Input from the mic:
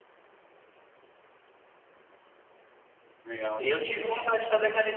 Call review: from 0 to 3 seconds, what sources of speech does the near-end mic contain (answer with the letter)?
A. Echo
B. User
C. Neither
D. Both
C